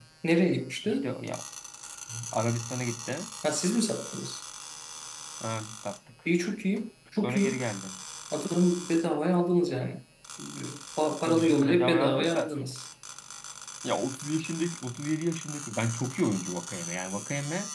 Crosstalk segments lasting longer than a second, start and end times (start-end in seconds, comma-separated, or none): 11.2-12.5